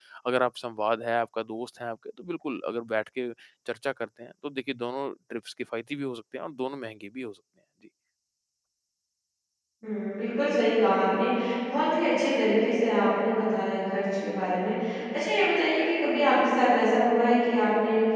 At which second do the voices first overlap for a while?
none

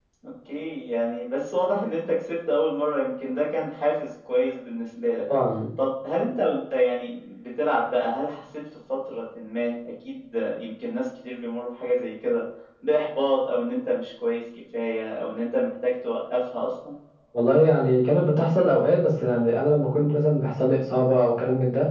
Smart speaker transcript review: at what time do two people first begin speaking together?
none

